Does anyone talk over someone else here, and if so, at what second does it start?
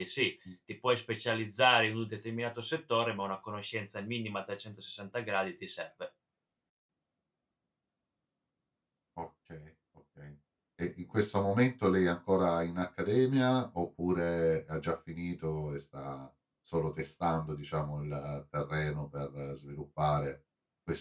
none

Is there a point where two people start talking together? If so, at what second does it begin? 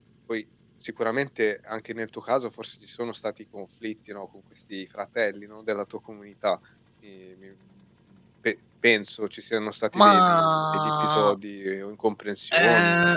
10.0 s

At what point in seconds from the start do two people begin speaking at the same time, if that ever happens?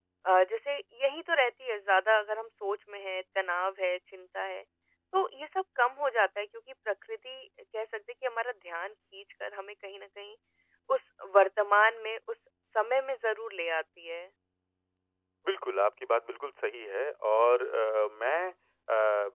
none

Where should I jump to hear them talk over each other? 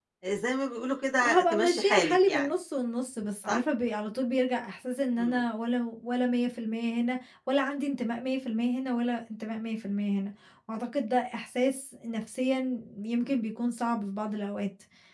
1.2 s

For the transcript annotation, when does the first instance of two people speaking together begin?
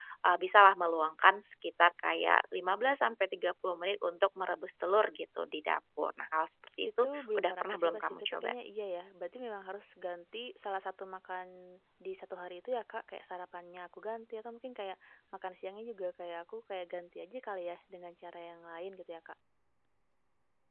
6.8 s

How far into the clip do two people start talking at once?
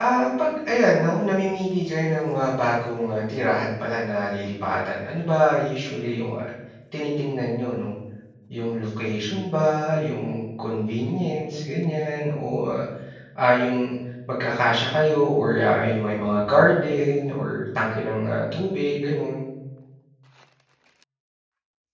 none

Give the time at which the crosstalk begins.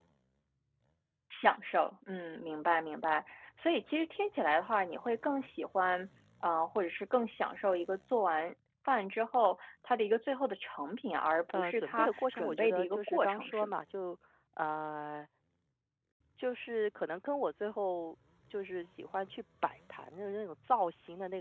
11.5 s

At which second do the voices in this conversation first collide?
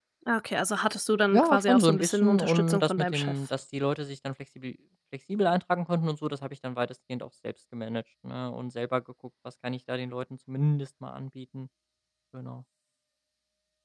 1.3 s

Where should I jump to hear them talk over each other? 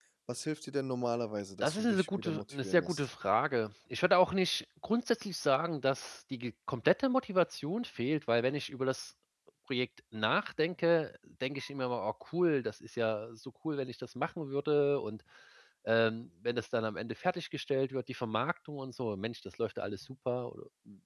1.6 s

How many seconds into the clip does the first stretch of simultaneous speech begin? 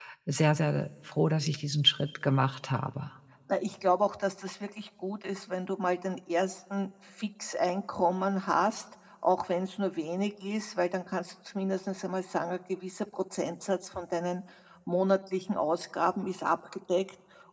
none

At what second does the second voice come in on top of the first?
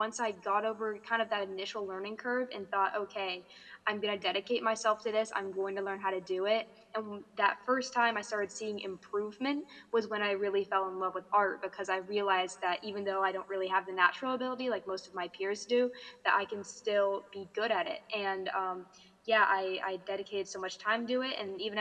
none

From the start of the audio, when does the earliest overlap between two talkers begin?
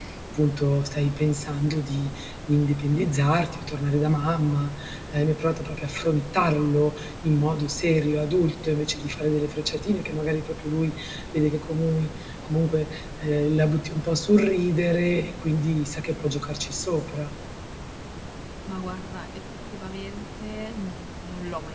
none

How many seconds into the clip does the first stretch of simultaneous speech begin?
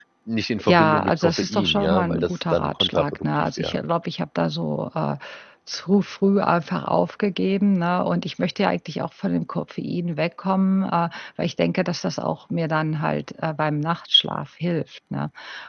0.6 s

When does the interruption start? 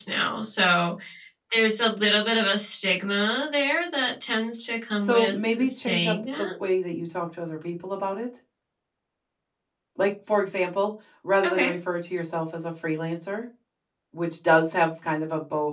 5.0 s

